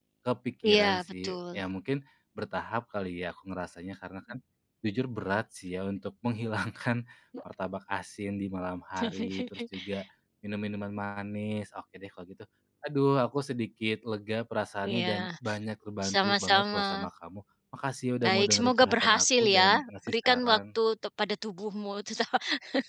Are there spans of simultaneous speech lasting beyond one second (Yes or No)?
Yes